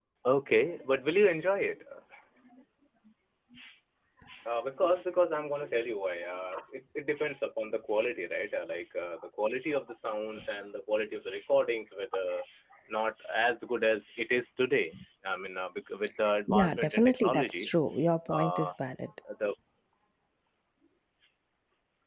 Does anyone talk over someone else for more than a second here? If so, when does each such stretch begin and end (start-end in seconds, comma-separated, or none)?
16.5-17.7